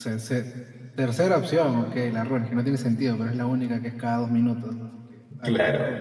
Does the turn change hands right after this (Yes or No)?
Yes